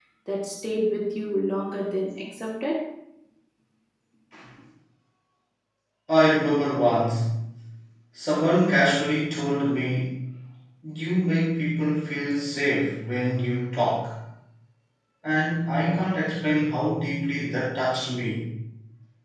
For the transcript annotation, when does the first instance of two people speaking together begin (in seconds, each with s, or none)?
none